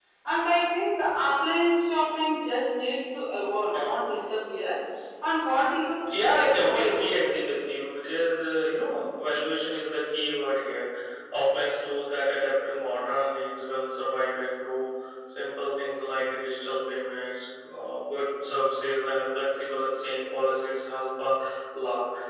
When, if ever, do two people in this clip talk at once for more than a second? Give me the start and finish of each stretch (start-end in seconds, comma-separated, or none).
6.1-7.3